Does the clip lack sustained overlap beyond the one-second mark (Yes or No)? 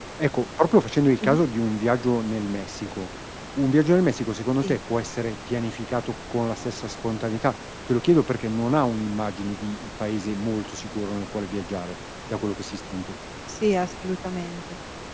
Yes